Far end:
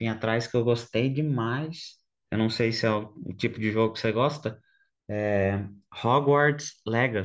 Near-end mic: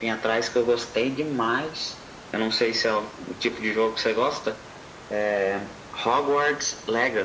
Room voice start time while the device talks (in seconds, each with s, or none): none